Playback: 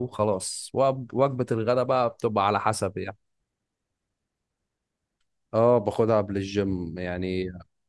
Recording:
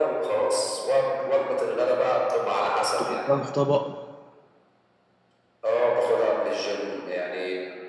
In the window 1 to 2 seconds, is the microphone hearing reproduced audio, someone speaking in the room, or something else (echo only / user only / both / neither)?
echo only